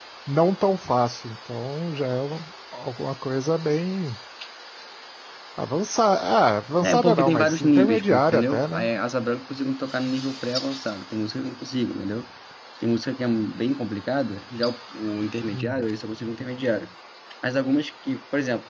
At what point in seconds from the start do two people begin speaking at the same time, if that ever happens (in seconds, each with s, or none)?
6.8 s